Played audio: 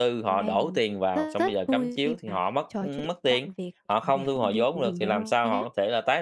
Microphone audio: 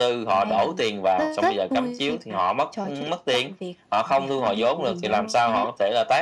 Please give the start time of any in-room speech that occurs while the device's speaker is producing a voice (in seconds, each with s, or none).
none